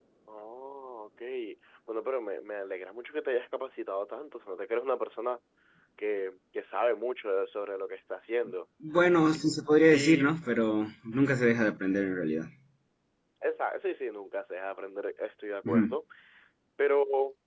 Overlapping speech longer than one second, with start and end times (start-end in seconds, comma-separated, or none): none